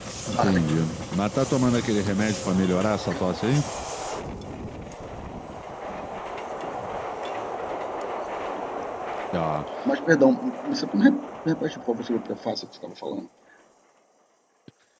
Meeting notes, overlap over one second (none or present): none